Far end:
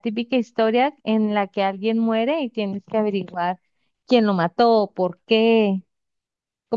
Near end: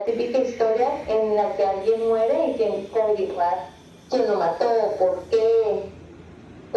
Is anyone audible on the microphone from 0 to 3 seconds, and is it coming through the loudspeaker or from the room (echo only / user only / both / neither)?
echo only